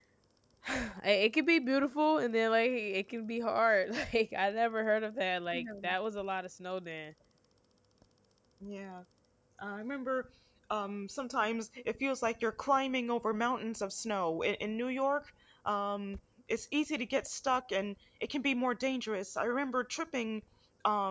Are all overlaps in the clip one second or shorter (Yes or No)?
Yes